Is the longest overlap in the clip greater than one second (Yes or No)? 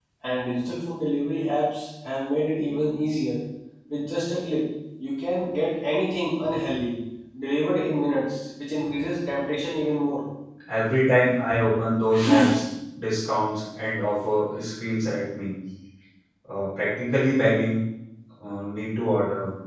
No